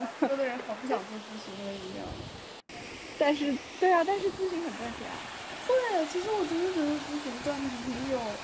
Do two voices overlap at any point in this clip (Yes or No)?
No